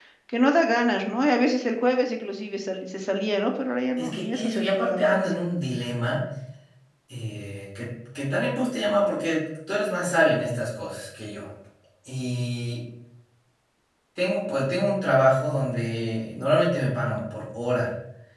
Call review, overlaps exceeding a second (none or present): present